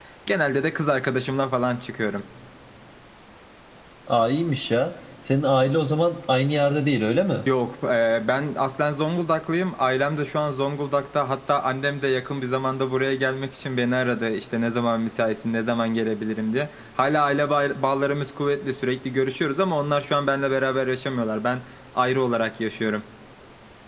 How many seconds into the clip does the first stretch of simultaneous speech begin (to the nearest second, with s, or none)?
none